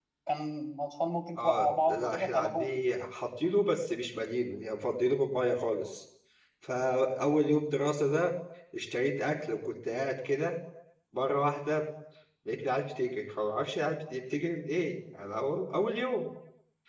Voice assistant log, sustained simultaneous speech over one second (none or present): present